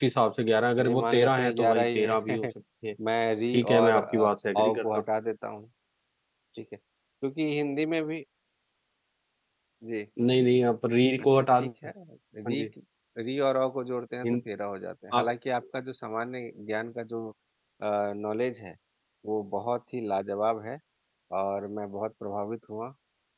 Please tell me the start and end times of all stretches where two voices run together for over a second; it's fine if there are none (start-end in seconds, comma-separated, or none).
0.8-2.4, 3.5-5.0